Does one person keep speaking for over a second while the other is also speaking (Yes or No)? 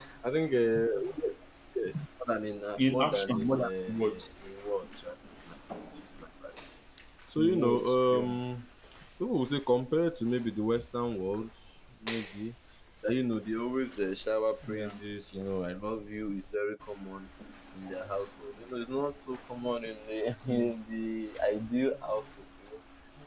Yes